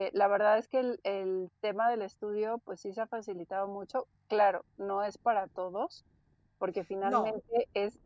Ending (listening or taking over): listening